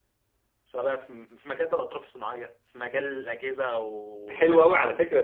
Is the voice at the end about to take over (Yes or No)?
Yes